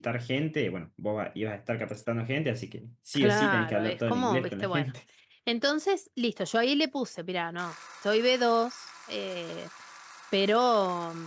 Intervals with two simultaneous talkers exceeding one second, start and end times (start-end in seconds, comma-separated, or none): 3.1-4.9